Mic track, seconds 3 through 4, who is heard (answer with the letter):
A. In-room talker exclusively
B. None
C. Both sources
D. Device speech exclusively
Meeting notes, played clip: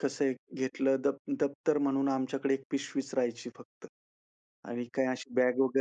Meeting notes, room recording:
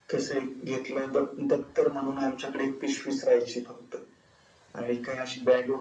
D